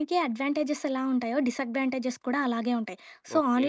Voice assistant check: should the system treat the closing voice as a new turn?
No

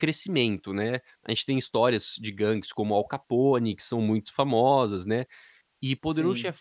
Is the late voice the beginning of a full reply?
No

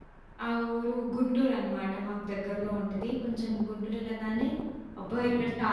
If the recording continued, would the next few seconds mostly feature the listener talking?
No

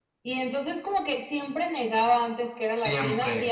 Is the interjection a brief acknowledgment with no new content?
Yes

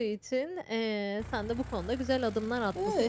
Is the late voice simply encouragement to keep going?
Yes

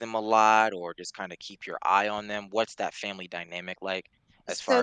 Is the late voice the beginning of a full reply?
Yes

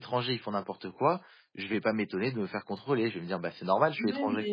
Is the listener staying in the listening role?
No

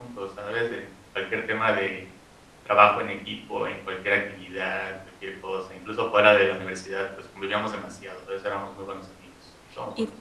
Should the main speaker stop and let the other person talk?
Yes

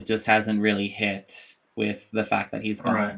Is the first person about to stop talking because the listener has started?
Yes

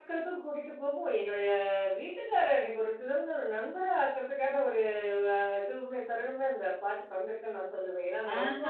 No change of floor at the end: No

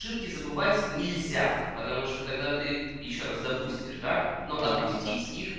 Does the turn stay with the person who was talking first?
Yes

